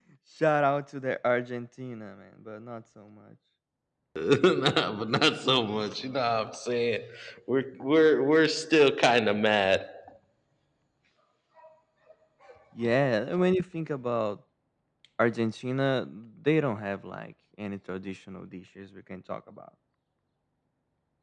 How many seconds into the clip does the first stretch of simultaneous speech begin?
none

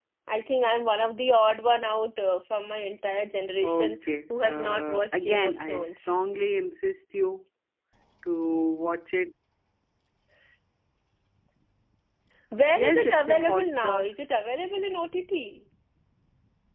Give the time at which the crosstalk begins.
3.6 s

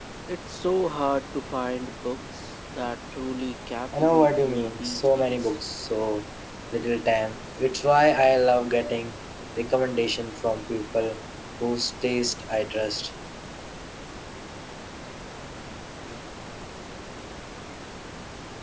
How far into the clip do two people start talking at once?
3.9 s

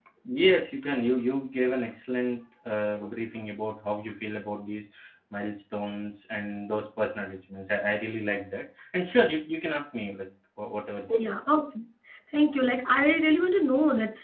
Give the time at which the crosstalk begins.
none

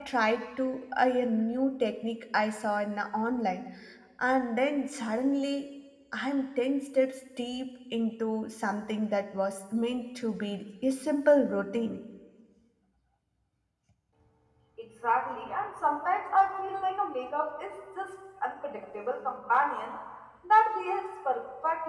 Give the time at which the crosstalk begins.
none

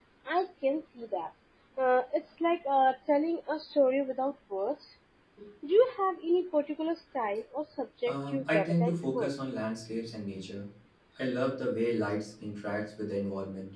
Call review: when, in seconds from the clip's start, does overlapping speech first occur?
8.1 s

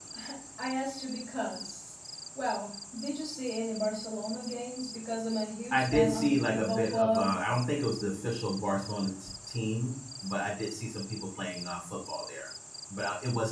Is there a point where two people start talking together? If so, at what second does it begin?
5.7 s

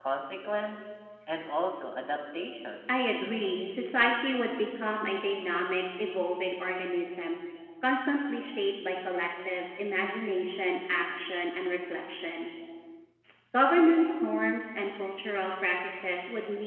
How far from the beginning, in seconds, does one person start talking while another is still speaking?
none

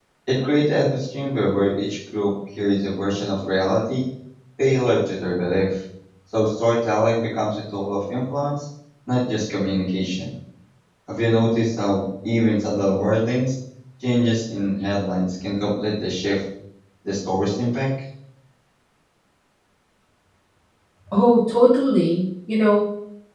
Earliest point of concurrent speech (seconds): none

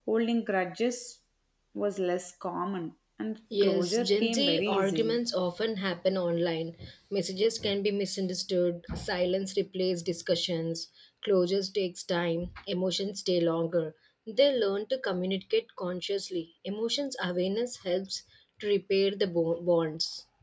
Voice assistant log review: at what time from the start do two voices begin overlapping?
3.5 s

